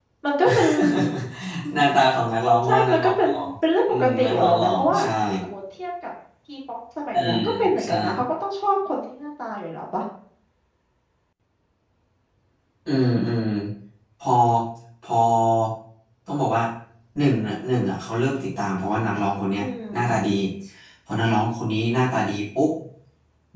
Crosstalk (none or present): present